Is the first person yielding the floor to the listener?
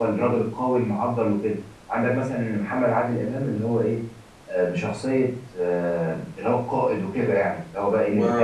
Yes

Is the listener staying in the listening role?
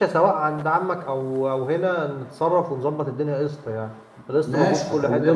No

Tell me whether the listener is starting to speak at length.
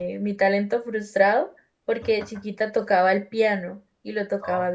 No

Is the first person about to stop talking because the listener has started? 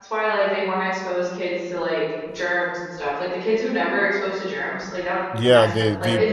Yes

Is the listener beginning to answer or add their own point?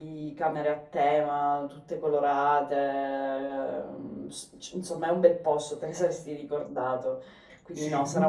Yes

